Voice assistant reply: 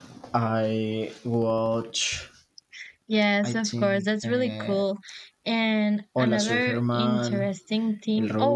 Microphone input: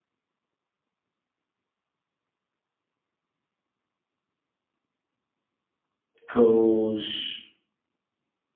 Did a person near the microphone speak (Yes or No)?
Yes